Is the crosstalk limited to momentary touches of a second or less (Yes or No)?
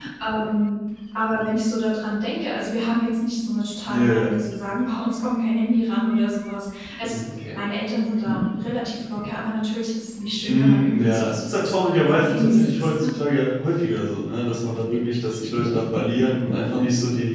No